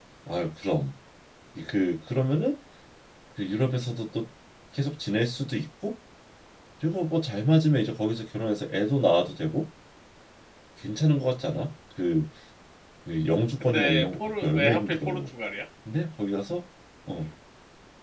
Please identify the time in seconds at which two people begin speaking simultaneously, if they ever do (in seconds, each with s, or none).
13.6 s